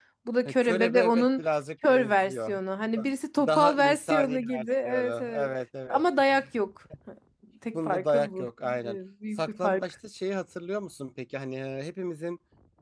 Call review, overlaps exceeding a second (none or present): present